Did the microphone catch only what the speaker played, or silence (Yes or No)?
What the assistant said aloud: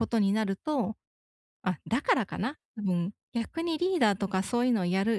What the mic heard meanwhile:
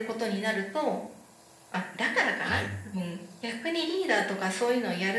No